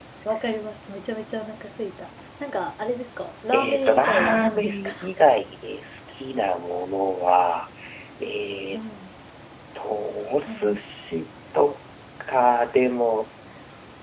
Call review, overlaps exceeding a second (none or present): present